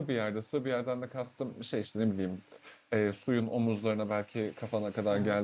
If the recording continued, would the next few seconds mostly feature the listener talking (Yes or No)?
No